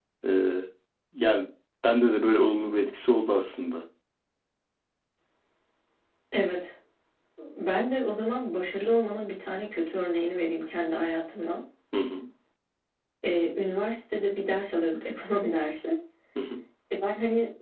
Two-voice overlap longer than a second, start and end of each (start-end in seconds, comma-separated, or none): none